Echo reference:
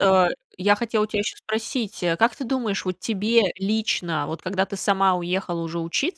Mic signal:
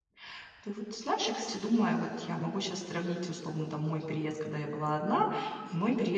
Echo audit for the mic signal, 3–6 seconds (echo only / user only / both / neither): user only